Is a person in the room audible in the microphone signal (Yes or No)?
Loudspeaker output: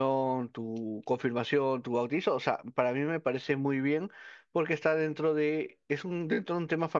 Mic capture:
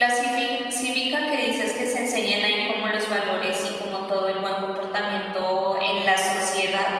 Yes